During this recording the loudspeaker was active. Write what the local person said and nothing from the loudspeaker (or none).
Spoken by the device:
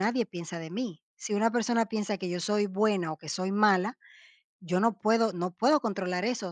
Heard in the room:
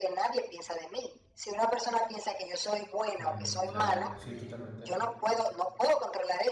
mm, claro, sí, totalmente,